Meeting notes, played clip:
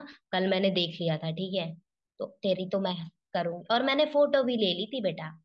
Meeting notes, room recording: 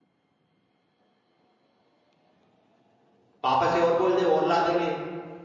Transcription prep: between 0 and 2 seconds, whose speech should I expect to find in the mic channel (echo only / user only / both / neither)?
neither